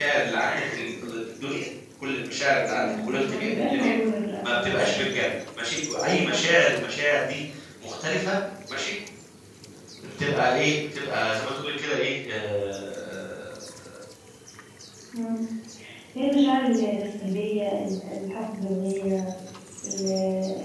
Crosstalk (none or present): present